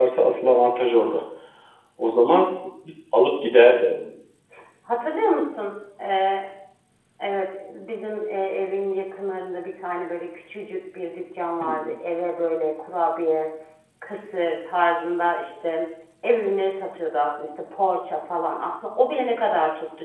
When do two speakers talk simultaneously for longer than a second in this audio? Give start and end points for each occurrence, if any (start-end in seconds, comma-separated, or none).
none